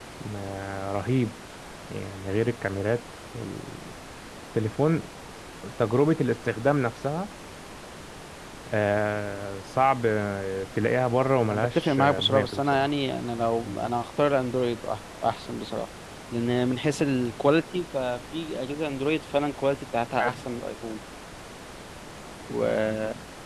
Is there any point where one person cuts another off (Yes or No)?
Yes